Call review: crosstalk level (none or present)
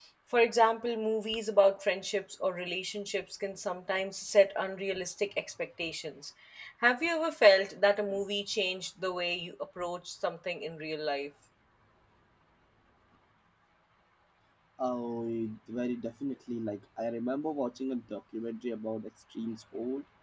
none